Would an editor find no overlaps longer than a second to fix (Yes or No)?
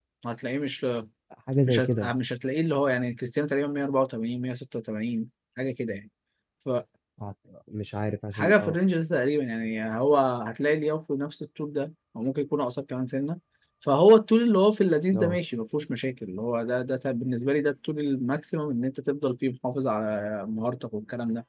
Yes